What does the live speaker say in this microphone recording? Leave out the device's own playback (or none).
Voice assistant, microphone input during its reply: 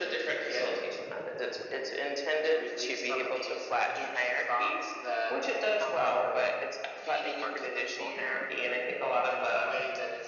how